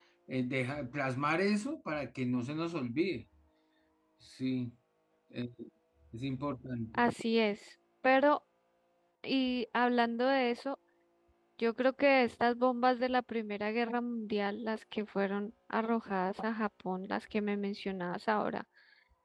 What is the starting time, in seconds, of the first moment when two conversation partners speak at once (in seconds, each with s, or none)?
none